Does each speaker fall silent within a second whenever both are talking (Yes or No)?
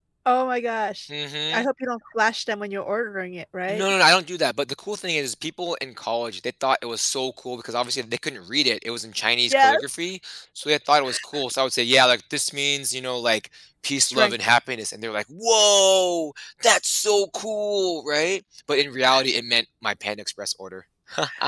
Yes